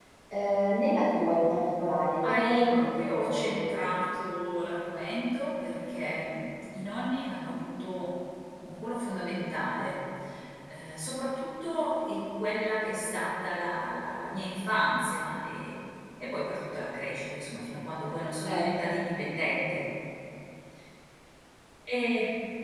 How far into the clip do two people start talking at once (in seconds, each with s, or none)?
2.3 s